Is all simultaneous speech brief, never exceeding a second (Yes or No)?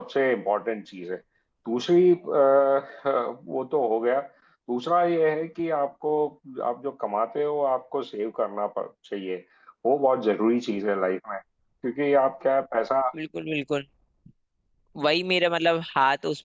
Yes